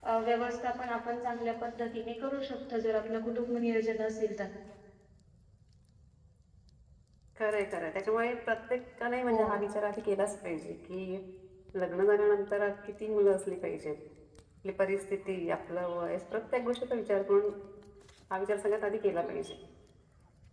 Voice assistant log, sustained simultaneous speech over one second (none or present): none